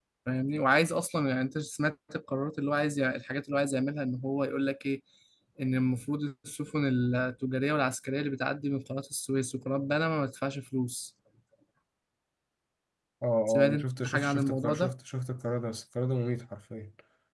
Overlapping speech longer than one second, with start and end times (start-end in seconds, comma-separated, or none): 13.7-14.9